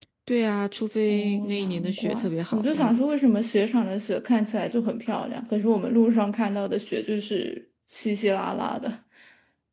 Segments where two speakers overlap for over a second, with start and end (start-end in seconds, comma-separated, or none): 1.1-3.0